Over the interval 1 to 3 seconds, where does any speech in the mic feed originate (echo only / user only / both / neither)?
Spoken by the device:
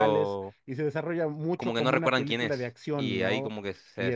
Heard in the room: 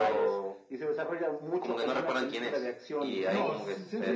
echo only